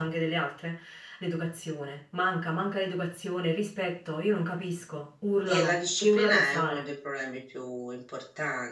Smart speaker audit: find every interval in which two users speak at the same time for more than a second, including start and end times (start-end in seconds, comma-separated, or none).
5.5-6.9